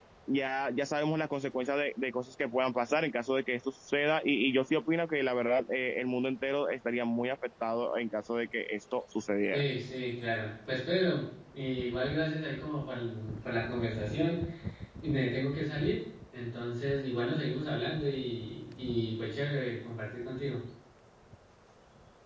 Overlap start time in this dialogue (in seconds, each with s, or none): none